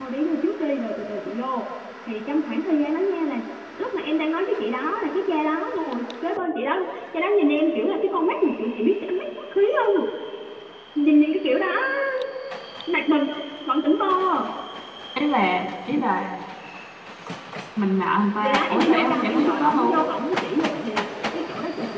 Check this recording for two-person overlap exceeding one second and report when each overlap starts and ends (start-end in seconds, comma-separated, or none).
18.4-20.0